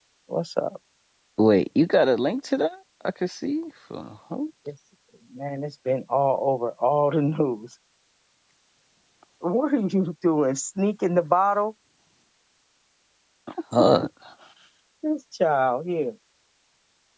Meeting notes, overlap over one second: none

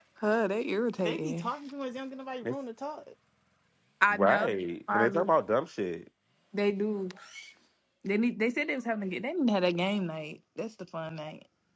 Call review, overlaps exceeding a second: none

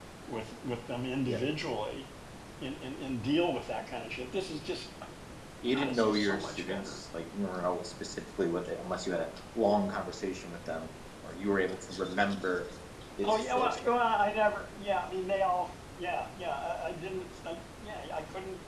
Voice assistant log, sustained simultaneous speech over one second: present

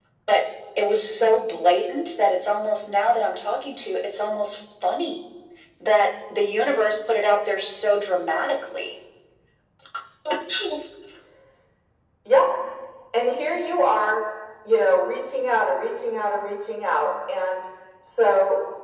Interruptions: none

